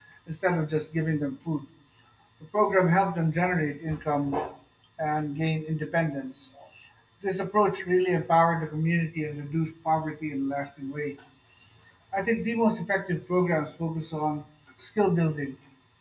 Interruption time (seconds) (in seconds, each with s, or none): none